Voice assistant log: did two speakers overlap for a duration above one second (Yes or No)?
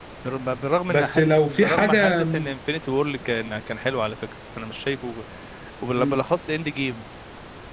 Yes